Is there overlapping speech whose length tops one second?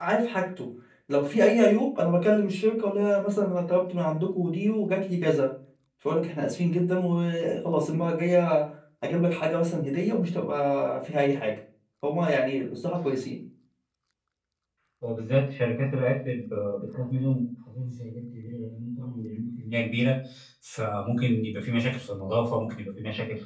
No

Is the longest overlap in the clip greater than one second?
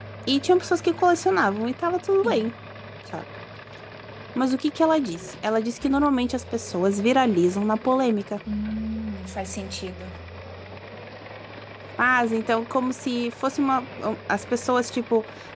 No

